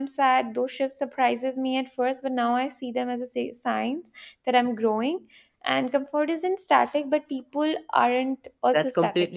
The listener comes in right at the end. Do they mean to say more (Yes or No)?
Yes